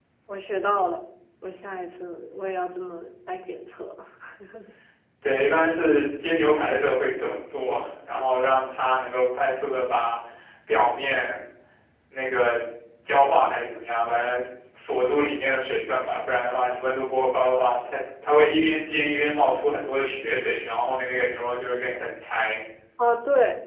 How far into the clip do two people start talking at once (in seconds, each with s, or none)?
none